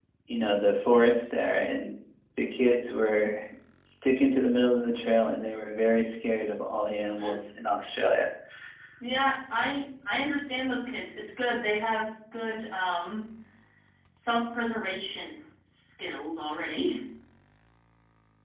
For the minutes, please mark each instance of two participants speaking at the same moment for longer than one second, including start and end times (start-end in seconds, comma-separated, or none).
none